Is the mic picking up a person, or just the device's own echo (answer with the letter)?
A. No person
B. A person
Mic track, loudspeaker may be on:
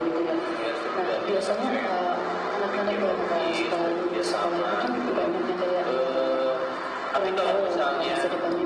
A